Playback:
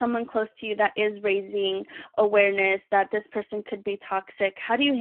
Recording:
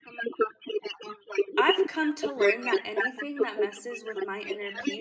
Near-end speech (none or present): present